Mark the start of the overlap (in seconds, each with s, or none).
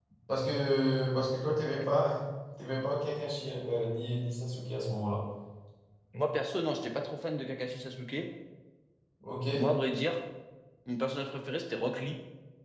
none